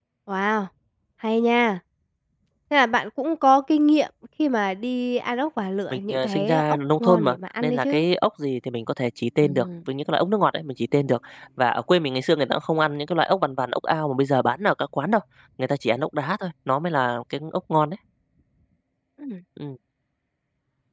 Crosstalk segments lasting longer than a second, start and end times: 5.9-8.0

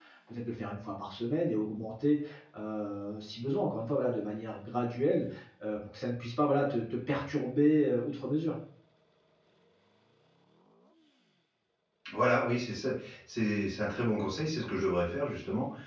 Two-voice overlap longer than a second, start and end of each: none

